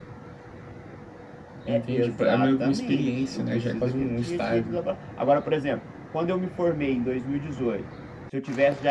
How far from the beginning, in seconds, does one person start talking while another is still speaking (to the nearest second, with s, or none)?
2 s